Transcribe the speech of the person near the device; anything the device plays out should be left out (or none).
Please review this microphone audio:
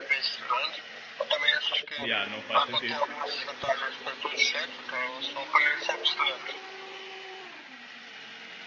Yeah, não faz sentido.